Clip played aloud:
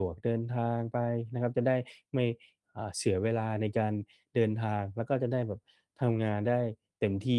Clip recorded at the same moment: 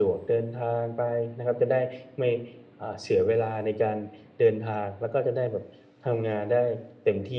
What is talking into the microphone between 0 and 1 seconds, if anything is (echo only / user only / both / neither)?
echo only